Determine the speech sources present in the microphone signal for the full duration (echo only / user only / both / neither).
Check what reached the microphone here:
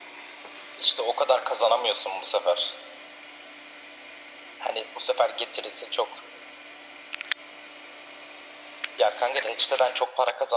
echo only